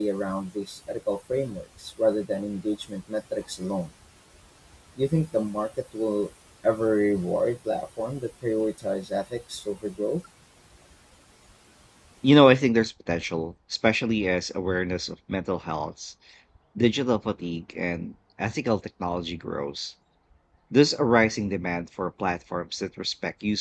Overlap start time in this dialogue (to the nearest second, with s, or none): none